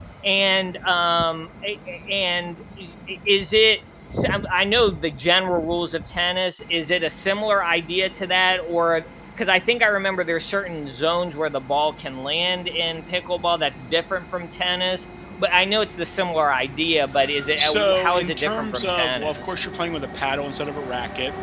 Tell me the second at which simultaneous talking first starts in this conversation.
17.6 s

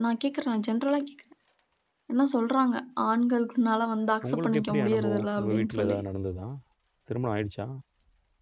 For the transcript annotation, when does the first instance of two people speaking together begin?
4.2 s

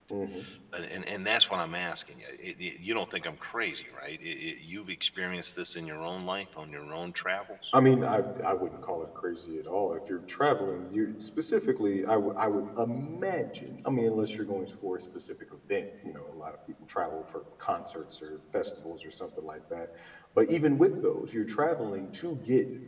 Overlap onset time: none

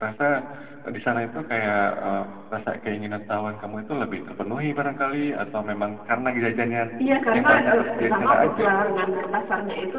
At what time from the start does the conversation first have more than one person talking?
7.3 s

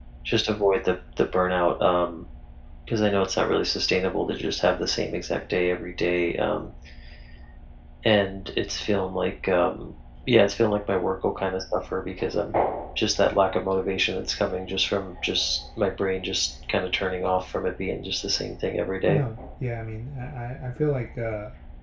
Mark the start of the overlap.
none

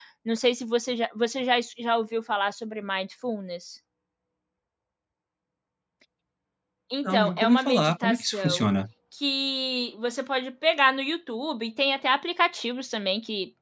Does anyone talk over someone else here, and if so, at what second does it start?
7.0 s

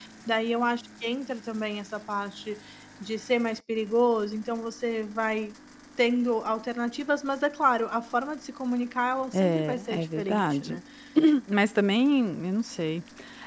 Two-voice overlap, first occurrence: 9.3 s

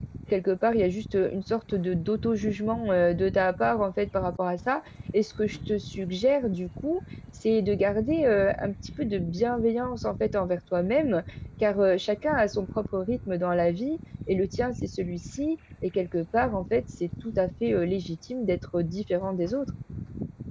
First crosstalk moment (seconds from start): none

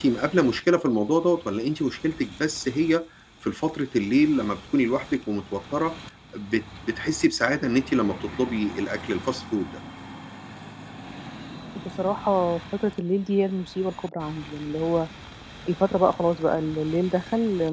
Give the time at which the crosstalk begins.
none

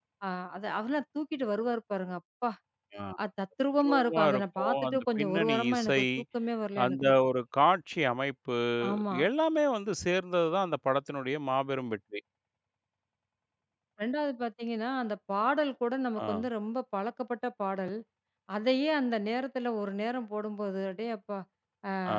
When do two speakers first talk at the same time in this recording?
3.8 s

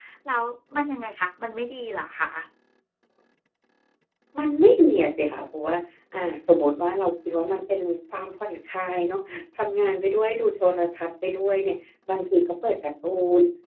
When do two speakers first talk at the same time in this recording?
none

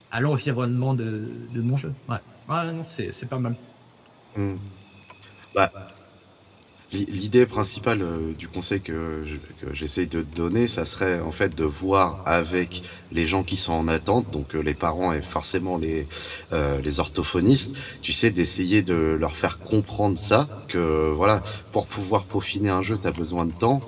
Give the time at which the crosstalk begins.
none

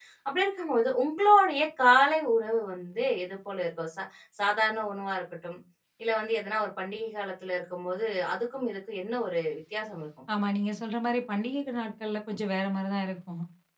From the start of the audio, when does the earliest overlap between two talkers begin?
none

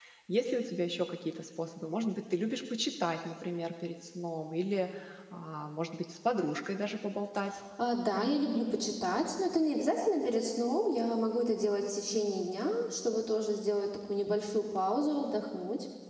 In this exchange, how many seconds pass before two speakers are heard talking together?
none

